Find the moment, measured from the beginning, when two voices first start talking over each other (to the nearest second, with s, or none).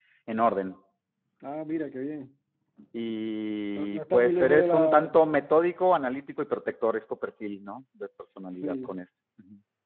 4 s